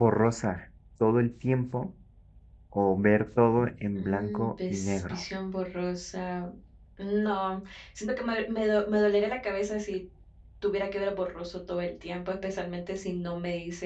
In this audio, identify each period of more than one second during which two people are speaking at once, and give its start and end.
4.0-5.2

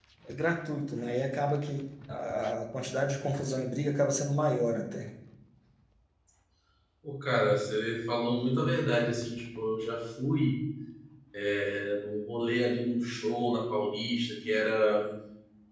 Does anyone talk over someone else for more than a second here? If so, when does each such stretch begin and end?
none

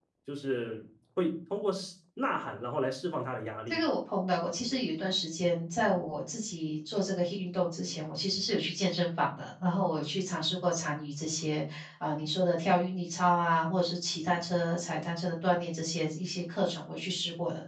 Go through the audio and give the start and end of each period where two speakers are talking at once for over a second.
none

